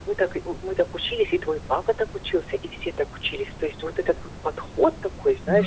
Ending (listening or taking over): listening